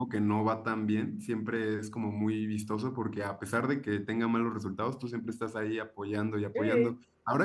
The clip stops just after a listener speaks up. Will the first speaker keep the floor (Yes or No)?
Yes